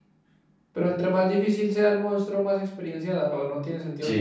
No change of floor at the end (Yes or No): No